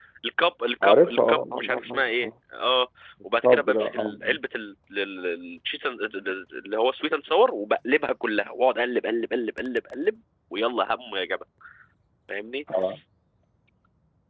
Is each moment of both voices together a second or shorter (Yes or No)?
No